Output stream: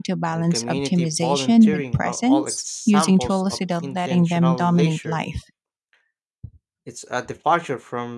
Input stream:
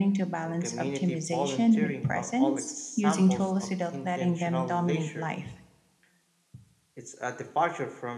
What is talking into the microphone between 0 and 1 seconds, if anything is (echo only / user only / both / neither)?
echo only